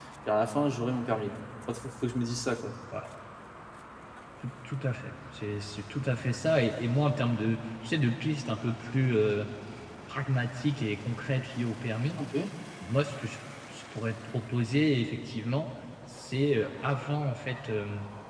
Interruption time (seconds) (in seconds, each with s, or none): none